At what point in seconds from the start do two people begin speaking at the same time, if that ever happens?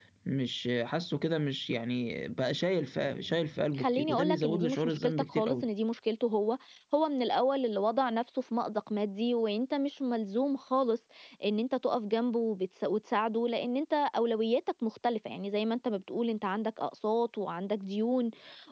4 s

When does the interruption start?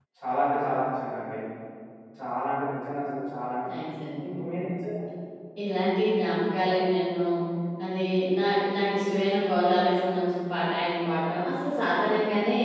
none

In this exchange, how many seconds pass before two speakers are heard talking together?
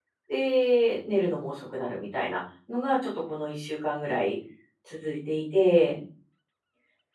none

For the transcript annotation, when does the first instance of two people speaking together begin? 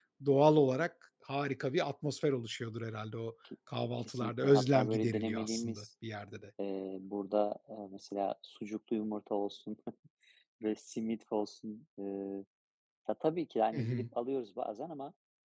4 s

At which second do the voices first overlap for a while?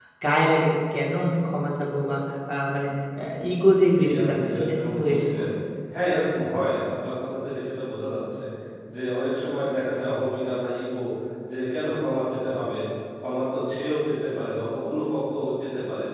4 s

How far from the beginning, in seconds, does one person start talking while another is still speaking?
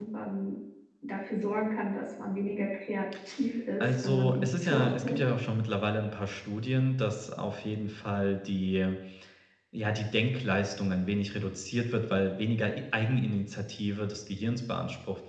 4 s

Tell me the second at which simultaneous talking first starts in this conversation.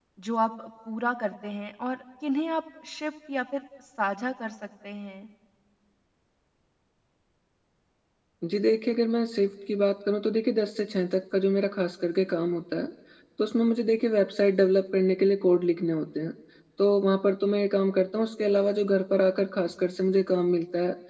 none

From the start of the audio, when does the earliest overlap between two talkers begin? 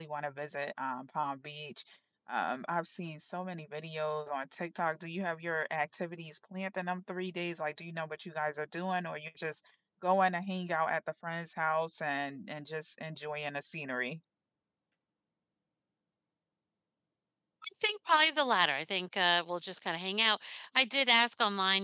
none

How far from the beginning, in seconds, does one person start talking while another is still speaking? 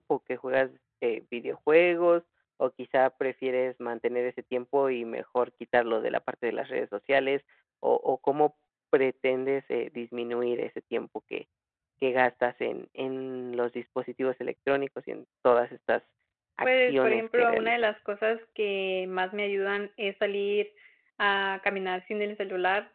17 s

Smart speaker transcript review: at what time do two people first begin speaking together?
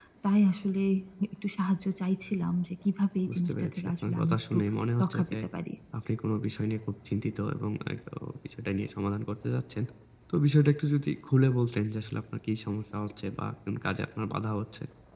3 s

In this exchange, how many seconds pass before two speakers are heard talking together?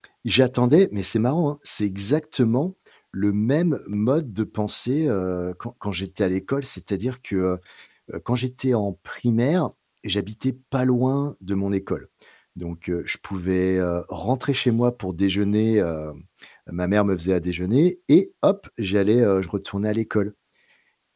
none

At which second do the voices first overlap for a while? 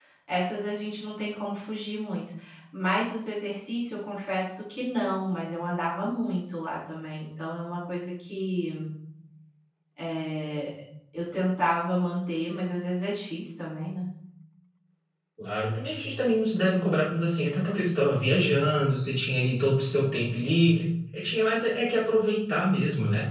none

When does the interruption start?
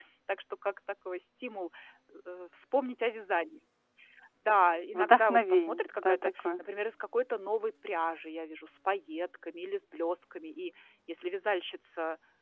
5 s

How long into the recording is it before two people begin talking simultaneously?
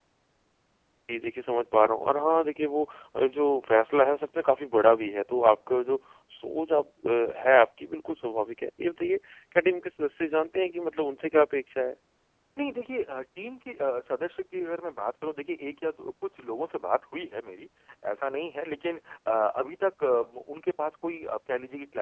none

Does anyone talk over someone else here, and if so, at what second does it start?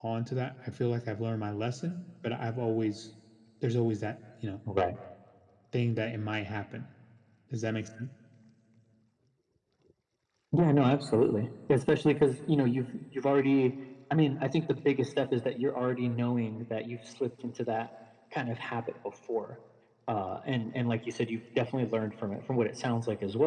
none

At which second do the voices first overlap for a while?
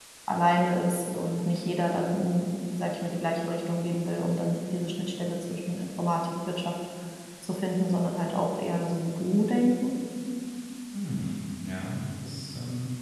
none

